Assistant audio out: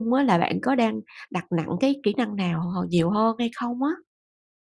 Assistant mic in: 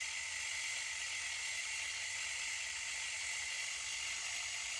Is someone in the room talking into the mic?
No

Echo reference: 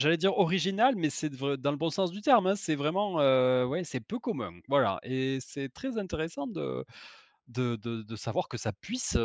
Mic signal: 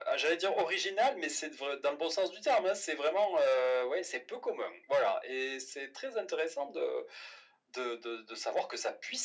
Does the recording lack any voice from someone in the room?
Yes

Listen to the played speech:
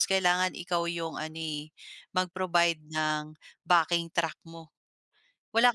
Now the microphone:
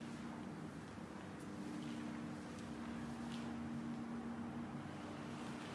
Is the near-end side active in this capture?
No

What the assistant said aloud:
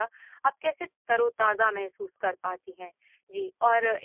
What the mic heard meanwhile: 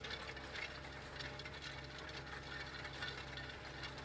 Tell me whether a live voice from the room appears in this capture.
No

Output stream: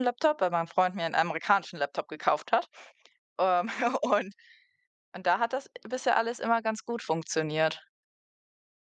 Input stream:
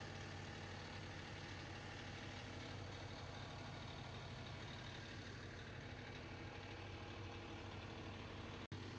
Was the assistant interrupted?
No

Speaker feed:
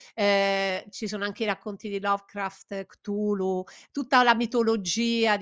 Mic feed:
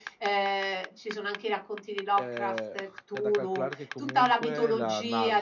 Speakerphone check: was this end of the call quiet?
No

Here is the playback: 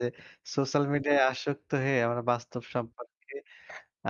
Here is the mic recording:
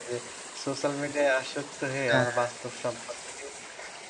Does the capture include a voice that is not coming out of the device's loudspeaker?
Yes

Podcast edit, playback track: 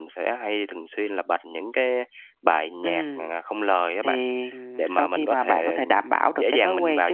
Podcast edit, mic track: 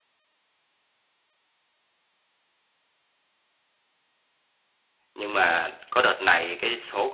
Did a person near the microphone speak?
Yes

